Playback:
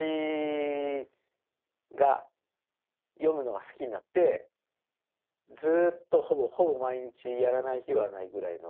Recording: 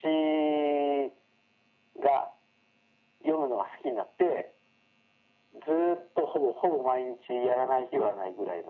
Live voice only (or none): none